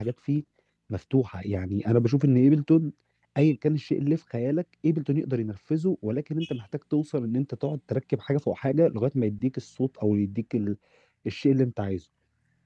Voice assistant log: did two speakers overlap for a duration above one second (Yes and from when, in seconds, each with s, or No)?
No